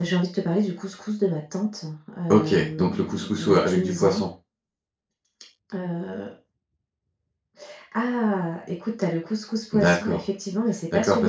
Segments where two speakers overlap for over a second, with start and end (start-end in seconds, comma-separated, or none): 2.3-4.2